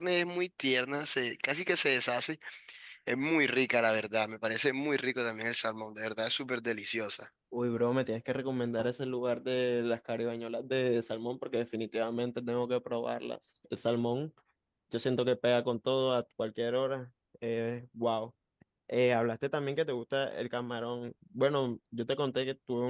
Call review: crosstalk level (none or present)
none